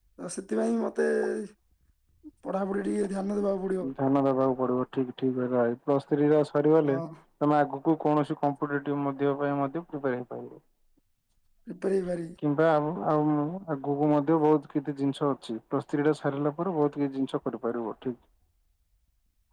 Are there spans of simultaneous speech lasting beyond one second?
No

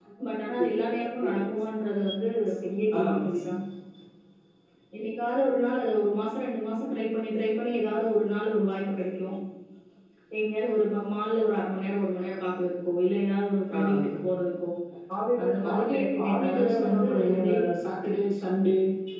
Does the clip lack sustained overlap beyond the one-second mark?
No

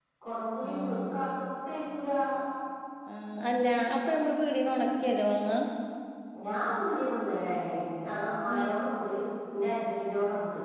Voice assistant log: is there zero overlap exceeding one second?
Yes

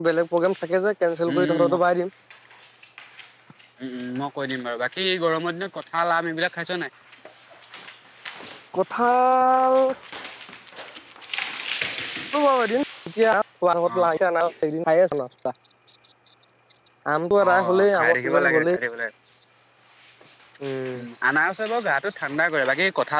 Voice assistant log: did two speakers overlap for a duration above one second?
Yes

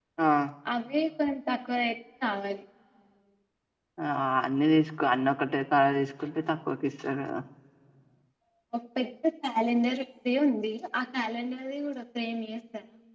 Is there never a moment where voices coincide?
Yes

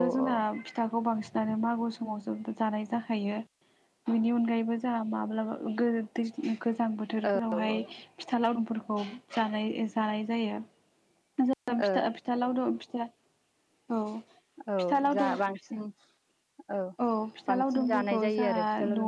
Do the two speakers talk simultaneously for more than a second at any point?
Yes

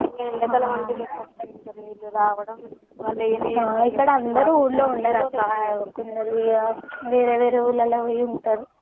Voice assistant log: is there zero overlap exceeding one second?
No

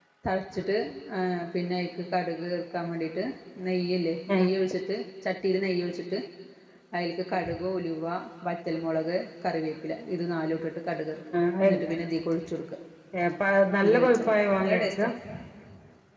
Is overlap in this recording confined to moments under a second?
No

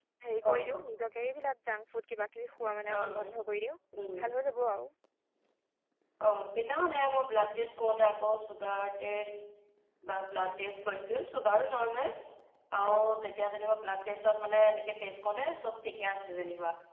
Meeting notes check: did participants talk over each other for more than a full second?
No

